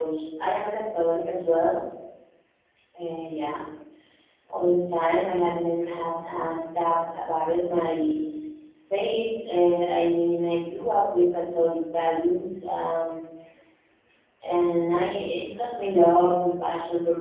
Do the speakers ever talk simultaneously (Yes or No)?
No